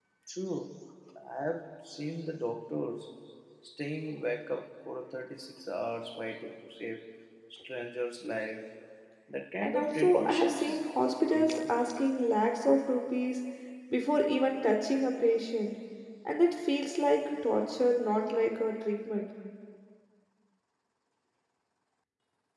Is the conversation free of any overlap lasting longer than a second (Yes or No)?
No